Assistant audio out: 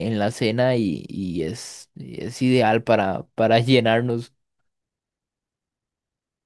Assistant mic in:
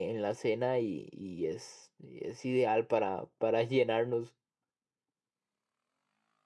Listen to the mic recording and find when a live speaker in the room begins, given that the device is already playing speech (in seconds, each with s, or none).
none